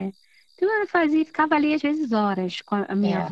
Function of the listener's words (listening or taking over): listening